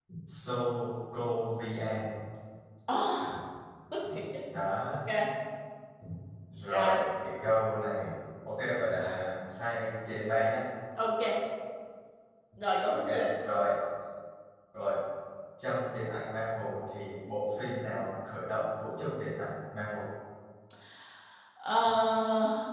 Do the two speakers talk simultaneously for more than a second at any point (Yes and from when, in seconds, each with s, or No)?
No